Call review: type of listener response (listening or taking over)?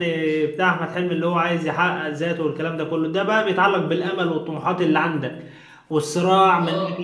listening